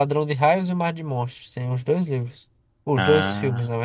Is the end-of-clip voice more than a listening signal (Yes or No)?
No